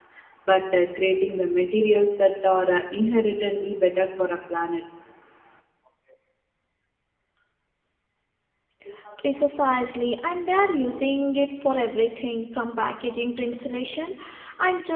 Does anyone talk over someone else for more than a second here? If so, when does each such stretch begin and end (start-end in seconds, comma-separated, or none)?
none